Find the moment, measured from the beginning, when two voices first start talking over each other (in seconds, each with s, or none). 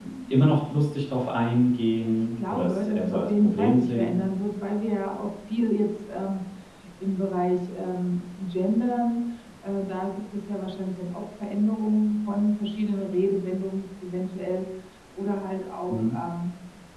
2.0 s